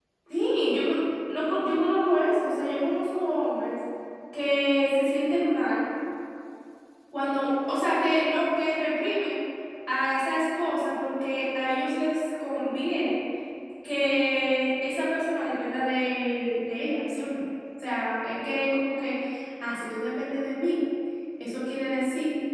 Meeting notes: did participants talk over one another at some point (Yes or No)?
No